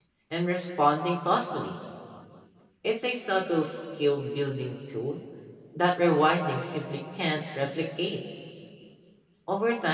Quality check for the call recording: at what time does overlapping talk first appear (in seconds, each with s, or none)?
none